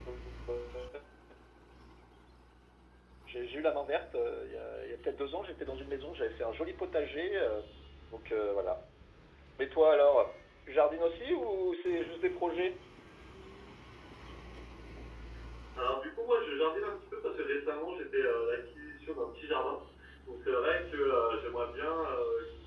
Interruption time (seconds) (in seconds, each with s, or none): none